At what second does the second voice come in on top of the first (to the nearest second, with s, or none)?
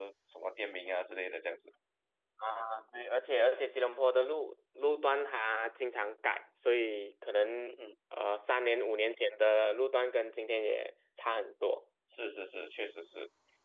none